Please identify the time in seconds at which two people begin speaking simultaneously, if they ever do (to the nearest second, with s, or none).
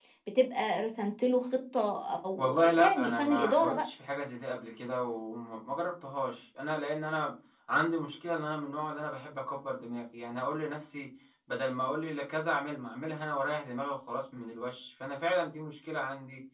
2 s